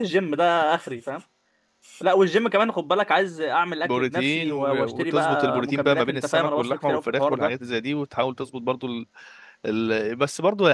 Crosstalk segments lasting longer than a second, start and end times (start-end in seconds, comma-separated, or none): 3.8-7.5